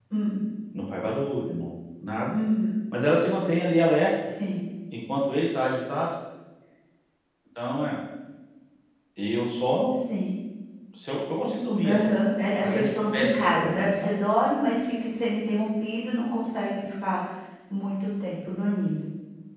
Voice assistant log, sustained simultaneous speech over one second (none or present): present